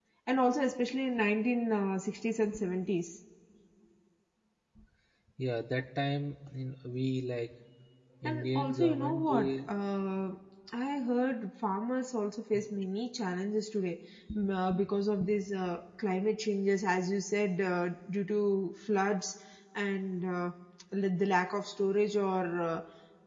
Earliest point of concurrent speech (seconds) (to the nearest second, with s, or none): 8 s